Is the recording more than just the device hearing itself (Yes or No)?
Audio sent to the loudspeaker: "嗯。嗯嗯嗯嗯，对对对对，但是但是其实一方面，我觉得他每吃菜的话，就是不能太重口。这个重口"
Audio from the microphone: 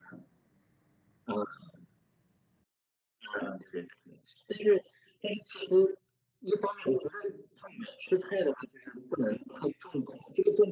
No